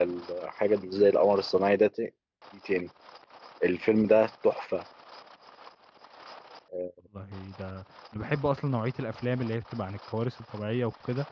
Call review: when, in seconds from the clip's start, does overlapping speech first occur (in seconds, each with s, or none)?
none